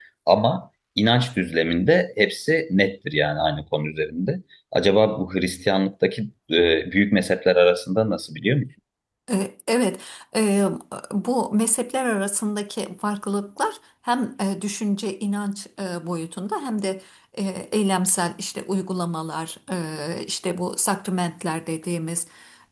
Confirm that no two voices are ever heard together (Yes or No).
Yes